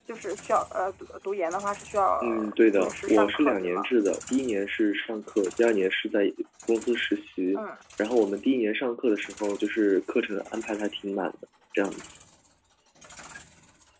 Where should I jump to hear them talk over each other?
2.2 s

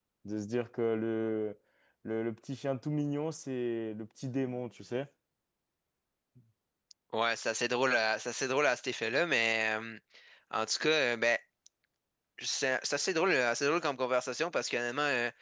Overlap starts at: none

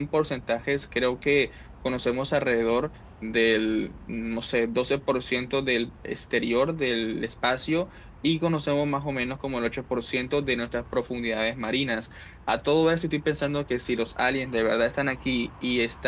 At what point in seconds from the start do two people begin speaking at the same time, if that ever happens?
none

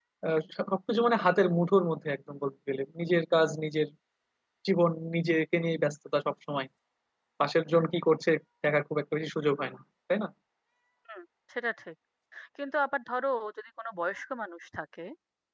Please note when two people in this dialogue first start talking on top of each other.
none

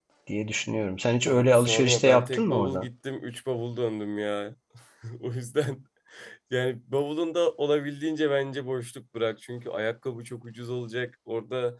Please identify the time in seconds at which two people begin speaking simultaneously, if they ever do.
1.2 s

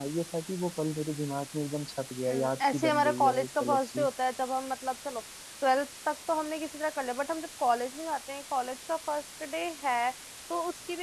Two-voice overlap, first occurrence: 2.3 s

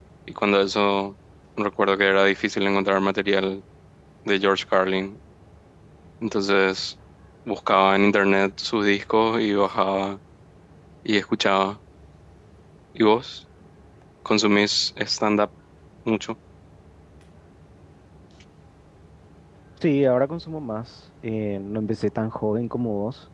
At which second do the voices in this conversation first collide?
none

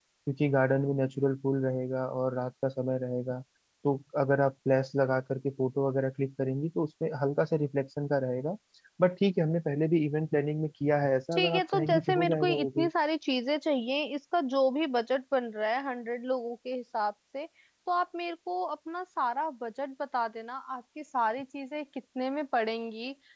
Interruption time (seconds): 11.3 s

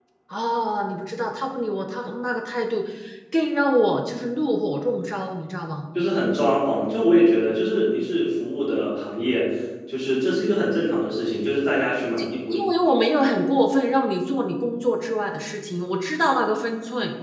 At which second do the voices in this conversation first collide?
none

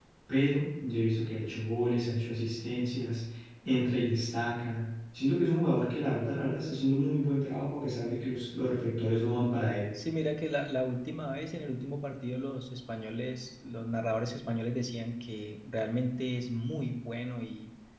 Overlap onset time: none

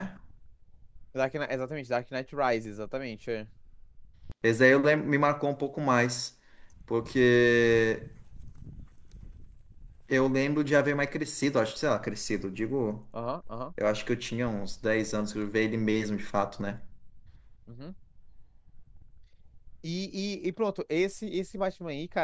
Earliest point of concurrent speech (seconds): none

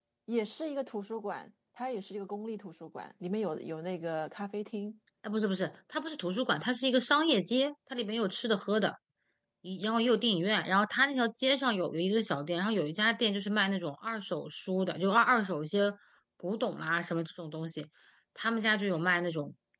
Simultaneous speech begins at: none

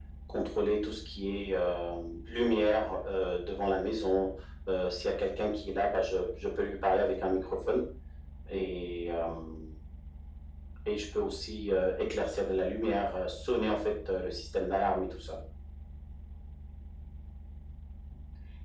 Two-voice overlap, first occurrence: none

